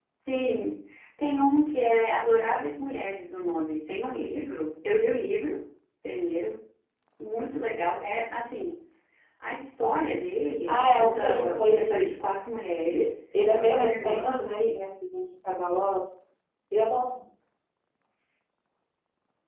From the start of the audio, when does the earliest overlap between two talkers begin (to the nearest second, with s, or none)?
11 s